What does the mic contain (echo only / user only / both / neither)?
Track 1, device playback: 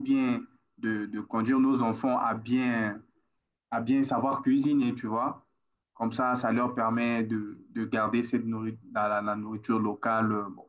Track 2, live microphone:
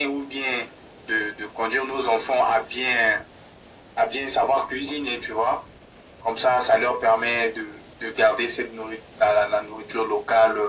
echo only